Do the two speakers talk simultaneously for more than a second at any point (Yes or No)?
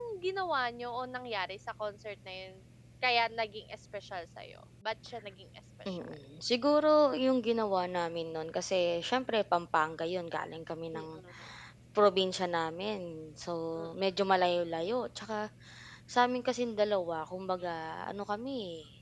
No